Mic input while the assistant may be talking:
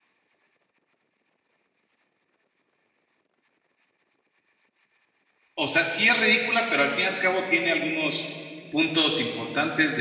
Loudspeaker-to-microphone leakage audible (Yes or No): No